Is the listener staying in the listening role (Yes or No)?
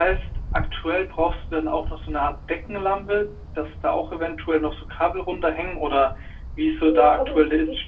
No